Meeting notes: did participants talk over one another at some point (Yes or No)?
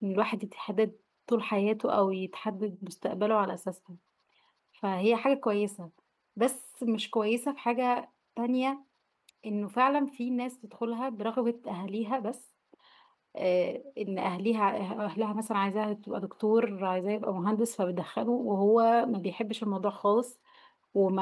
No